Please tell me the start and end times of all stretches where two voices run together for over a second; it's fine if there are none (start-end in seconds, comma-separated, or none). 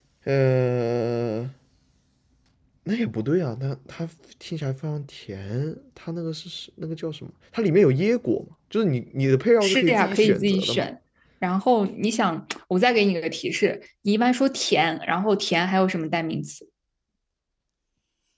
9.6-10.9